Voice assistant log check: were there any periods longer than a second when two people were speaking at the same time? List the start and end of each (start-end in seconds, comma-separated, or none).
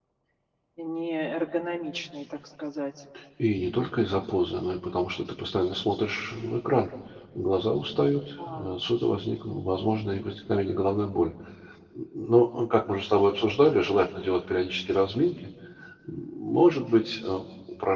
none